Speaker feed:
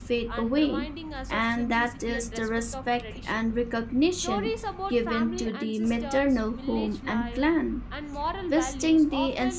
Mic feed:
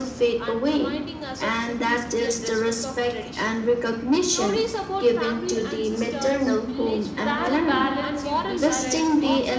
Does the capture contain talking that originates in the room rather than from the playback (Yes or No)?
Yes